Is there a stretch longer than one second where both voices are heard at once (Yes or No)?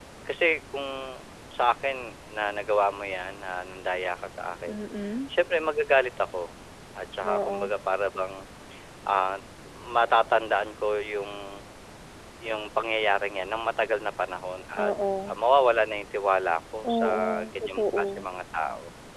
Yes